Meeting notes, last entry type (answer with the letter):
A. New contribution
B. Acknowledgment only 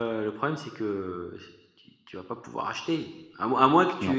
B